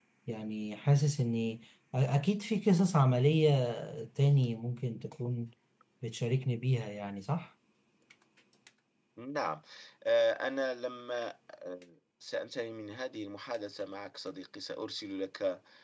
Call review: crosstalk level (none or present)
none